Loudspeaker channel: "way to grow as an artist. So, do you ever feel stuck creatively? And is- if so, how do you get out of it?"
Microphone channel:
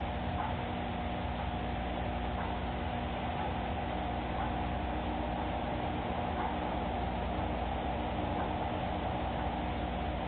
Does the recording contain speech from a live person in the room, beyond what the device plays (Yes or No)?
No